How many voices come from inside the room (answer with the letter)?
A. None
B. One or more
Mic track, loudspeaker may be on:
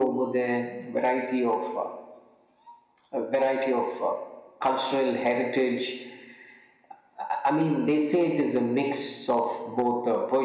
A